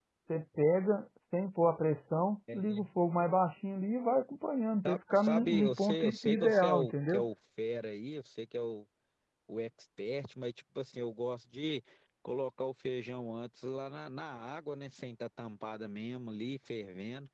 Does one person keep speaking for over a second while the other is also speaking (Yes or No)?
Yes